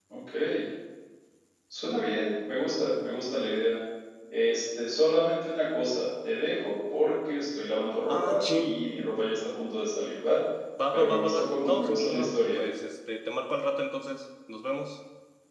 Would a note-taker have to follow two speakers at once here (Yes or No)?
Yes